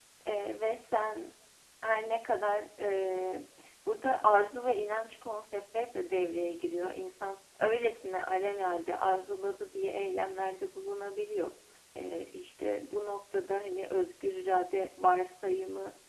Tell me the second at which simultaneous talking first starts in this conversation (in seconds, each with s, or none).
none